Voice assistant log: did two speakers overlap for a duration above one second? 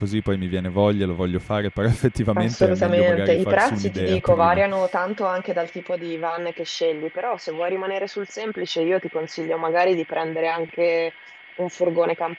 Yes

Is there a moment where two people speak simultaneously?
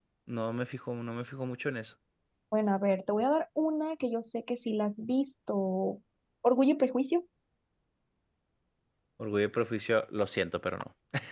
No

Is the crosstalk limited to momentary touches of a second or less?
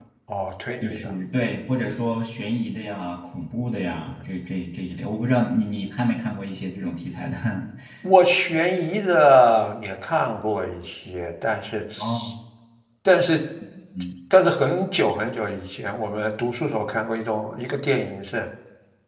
Yes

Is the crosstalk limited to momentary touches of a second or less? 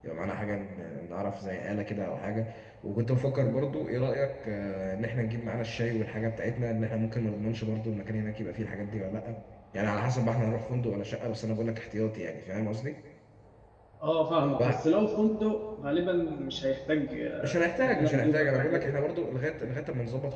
No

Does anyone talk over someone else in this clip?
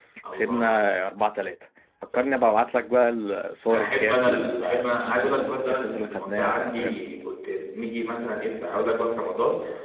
Yes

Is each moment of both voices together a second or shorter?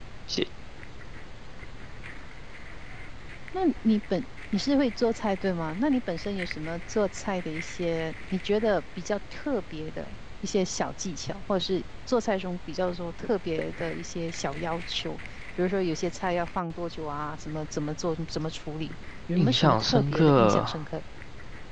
No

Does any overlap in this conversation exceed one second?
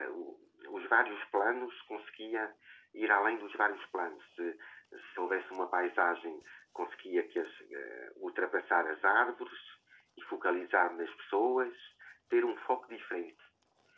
No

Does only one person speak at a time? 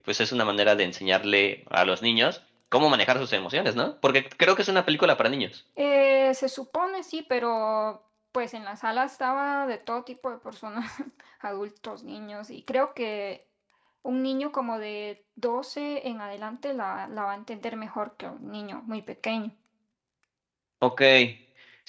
Yes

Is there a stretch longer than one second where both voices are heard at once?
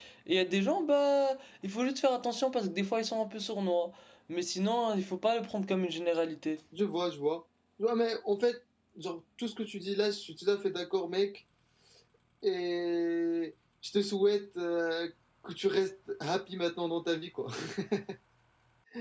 No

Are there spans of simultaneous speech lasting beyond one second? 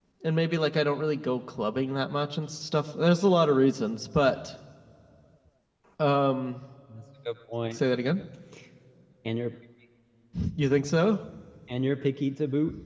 No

